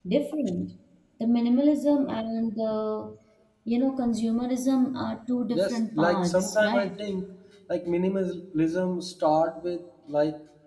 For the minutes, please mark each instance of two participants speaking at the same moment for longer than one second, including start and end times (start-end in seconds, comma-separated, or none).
5.5-7.0